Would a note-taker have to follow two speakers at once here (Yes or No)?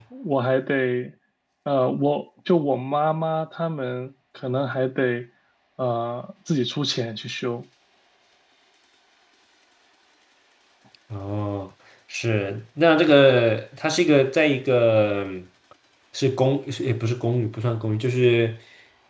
No